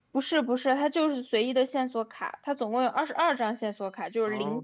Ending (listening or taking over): listening